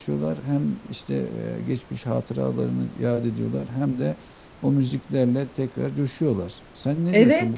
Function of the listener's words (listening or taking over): taking over